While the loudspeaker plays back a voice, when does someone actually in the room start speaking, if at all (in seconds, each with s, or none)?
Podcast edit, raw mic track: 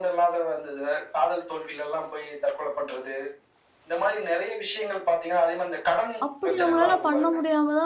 6.3 s